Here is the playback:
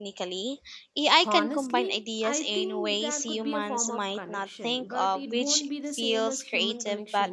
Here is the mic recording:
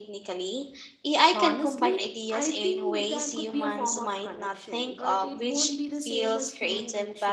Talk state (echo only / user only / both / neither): echo only